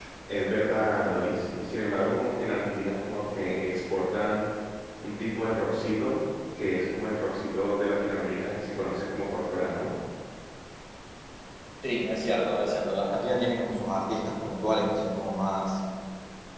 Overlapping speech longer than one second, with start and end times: none

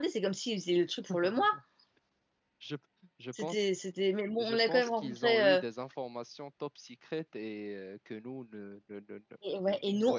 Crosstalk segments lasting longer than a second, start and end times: 4.4-5.6

